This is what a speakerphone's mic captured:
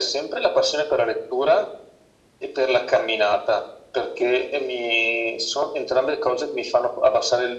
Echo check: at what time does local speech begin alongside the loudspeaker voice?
none

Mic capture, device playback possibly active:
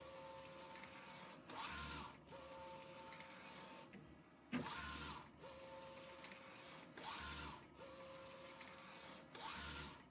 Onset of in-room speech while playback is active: none

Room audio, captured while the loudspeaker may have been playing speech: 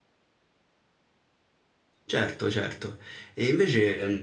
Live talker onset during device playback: 2.0 s

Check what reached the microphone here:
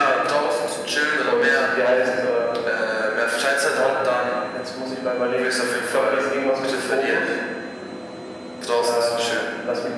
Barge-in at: none

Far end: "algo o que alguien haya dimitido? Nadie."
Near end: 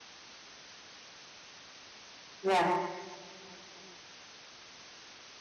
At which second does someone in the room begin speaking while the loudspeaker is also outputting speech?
2.4 s

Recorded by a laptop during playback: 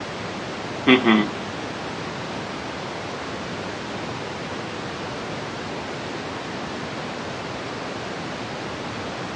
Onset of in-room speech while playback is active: 0.9 s

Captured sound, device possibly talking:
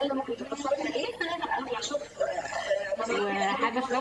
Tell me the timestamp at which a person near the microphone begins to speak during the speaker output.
3.1 s

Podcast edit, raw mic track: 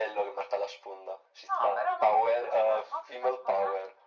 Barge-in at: none

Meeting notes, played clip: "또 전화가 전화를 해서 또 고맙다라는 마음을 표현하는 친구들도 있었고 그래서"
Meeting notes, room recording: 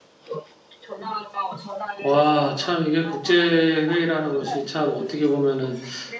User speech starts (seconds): 2.0 s

